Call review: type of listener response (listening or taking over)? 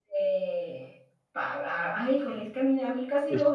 listening